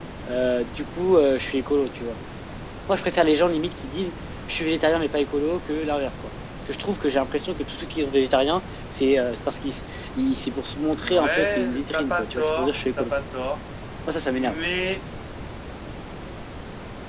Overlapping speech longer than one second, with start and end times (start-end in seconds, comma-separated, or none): 11.0-13.1